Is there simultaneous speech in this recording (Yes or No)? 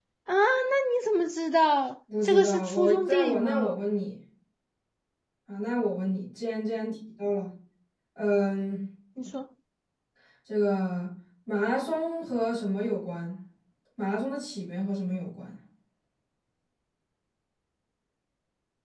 Yes